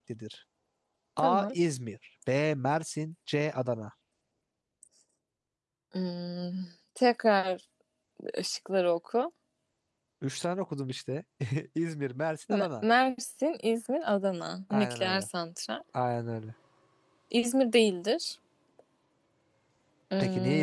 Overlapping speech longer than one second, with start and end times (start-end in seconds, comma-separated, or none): none